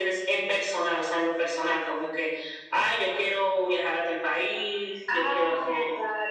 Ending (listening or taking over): taking over